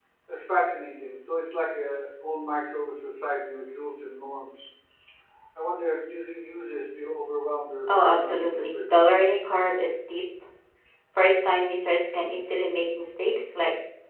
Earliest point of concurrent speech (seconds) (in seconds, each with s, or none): 7.9 s